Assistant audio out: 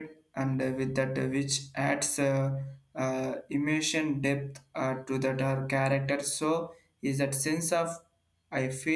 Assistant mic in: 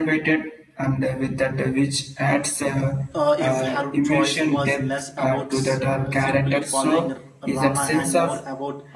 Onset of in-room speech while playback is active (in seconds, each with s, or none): 3.1 s